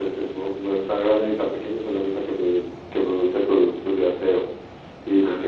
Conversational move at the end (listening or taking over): listening